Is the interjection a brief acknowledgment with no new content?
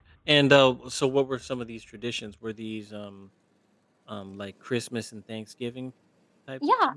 No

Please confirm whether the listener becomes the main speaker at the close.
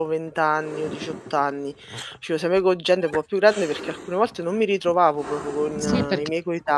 Yes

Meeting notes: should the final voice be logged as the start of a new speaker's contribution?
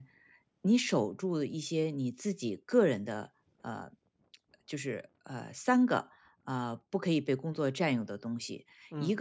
No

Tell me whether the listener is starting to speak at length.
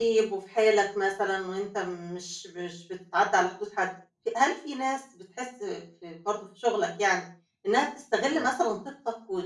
No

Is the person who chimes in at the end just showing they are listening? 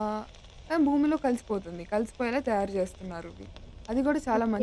No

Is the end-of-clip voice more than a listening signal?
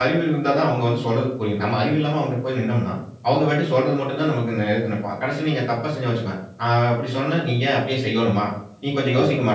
No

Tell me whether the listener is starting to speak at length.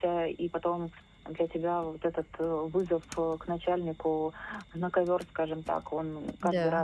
No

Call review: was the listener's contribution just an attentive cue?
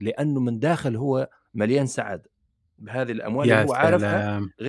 Yes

